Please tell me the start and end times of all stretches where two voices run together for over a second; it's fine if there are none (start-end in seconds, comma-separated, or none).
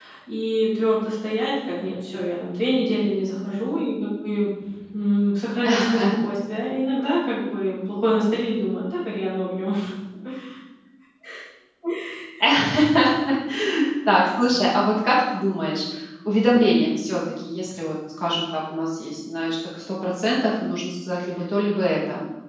none